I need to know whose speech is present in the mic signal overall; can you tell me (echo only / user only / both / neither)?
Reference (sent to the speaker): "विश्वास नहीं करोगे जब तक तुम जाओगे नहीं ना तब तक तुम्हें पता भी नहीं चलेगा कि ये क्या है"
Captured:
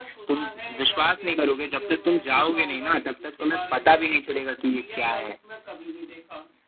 both